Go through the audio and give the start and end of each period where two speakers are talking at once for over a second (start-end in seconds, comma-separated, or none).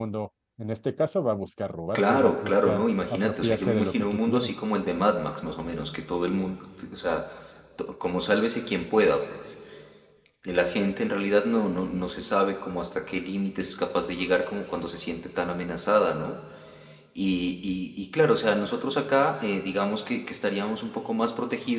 1.9-4.5